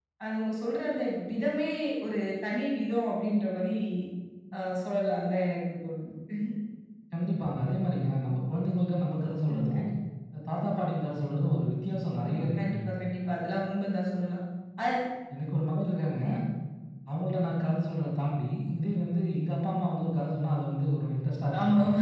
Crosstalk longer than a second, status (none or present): none